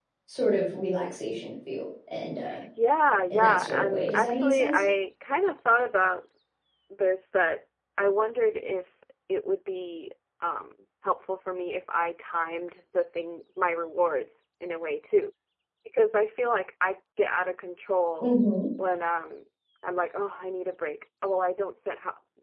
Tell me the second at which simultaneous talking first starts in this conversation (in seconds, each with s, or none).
3.3 s